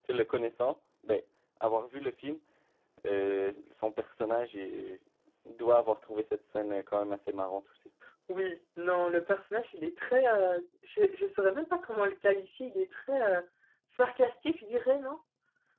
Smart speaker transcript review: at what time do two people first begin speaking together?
none

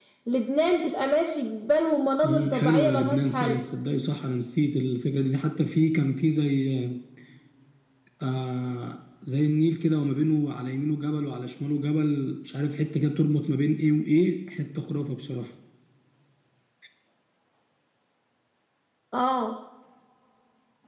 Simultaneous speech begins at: 2.2 s

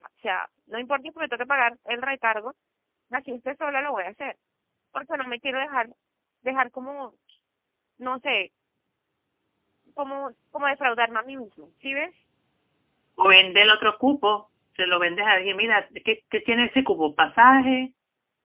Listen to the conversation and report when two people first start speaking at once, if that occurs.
none

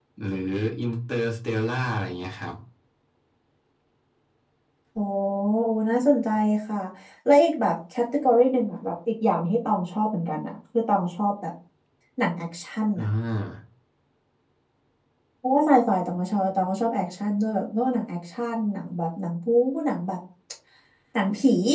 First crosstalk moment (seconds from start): none

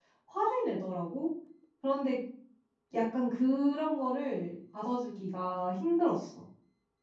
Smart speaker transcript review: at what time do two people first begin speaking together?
none

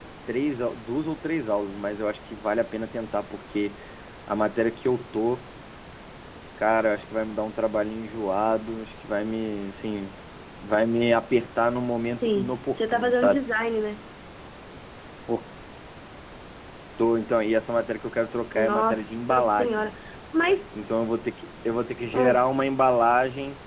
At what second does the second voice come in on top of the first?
12.2 s

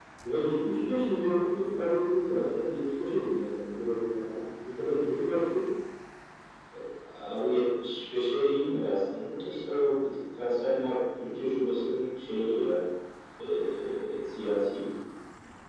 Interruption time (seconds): none

